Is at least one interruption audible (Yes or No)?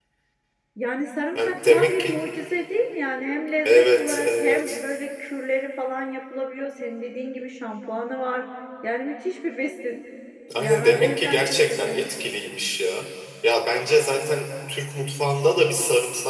Yes